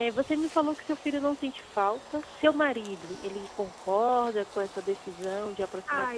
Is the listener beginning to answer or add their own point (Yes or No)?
Yes